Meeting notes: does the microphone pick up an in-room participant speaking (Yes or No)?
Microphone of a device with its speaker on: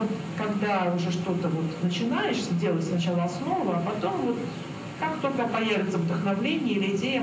No